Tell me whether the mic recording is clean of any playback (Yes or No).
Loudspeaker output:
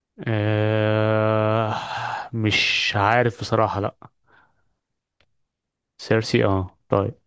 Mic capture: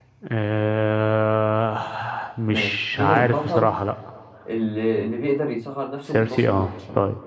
No